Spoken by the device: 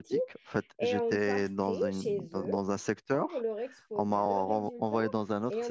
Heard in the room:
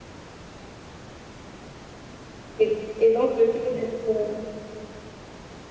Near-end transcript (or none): Et, et donc, le fait d'être, euh,